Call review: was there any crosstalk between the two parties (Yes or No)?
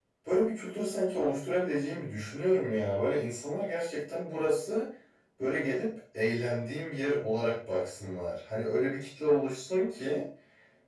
No